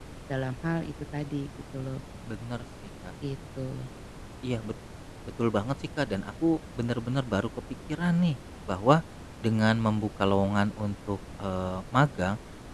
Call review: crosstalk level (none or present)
none